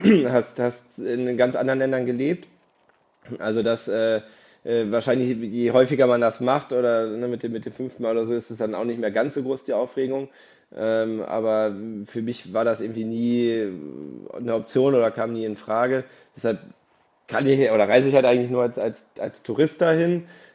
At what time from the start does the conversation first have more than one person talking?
none

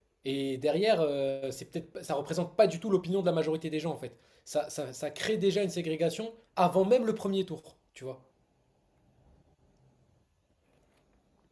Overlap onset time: none

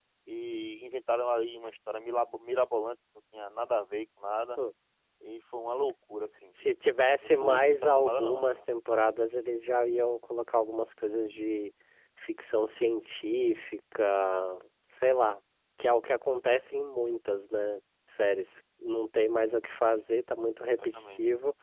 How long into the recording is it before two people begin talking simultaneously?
7.2 s

